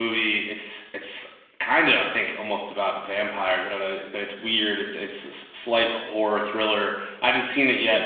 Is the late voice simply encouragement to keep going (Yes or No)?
Yes